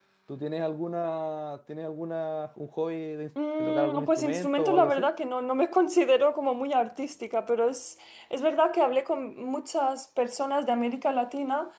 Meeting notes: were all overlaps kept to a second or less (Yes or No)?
No